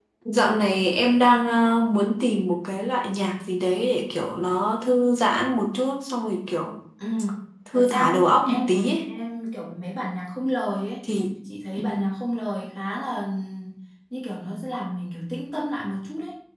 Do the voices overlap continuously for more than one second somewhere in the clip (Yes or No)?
Yes